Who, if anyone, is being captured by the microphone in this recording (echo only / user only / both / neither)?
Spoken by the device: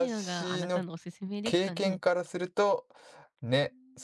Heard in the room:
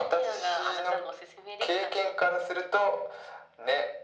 echo only